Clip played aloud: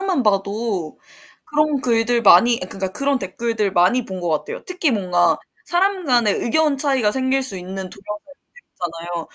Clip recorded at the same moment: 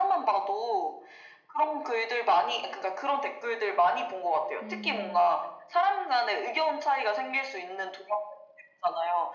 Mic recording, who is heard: both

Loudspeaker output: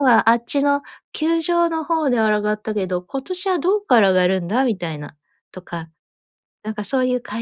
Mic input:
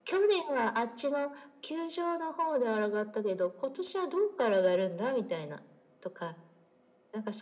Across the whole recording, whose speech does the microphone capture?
echo only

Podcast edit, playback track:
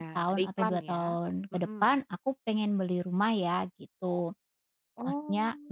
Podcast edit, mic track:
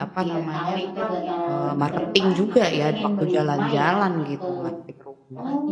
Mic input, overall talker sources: both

